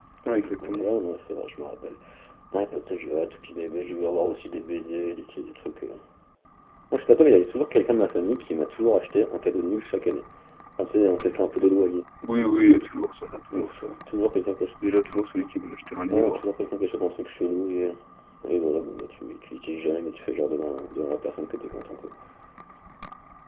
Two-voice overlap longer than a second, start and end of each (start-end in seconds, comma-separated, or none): none